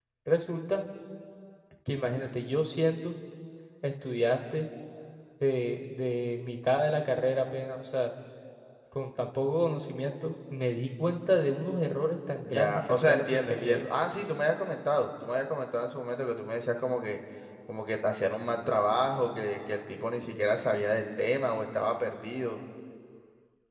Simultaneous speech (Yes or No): Yes